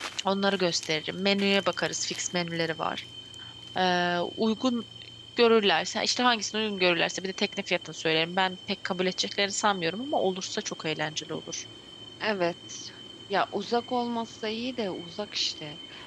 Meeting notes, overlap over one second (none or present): none